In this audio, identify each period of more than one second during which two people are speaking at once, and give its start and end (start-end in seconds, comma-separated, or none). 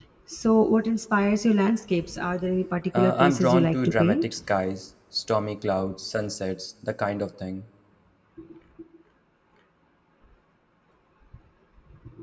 2.9-4.2